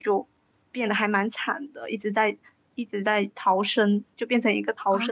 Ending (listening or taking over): taking over